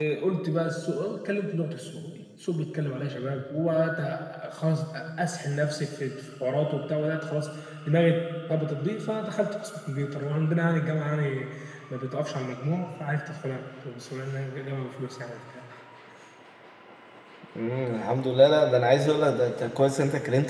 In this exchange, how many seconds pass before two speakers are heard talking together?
none

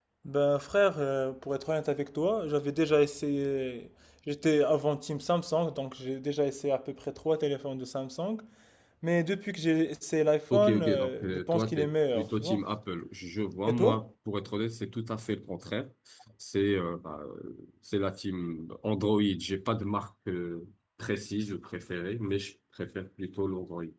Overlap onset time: 10.5 s

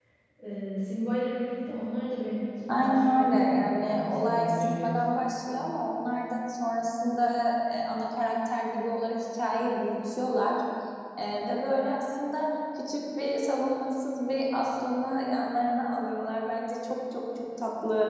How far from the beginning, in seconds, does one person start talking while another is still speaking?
2.7 s

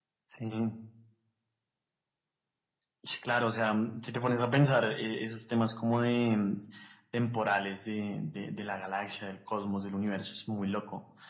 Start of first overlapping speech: none

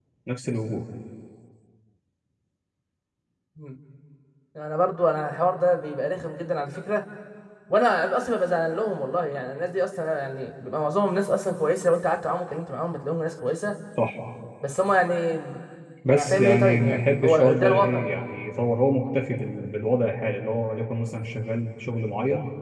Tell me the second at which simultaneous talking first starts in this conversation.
16.1 s

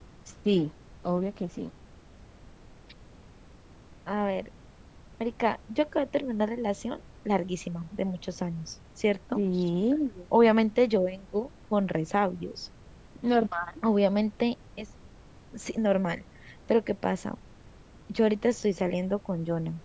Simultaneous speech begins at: none

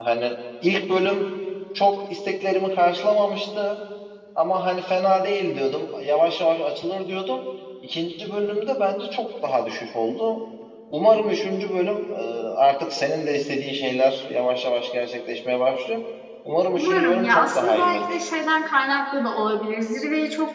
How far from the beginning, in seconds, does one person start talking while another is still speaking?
16.7 s

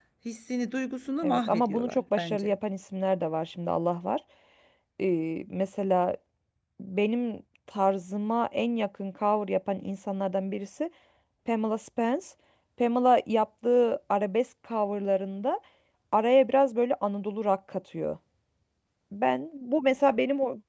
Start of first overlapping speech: 1.2 s

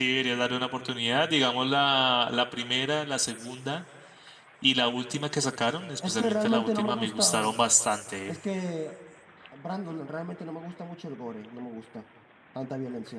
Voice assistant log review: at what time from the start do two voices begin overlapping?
6.0 s

